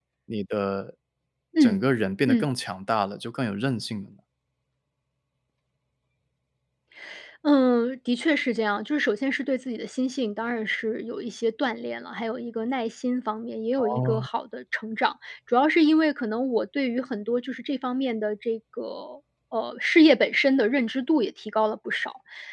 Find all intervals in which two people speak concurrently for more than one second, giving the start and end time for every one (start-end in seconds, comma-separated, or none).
none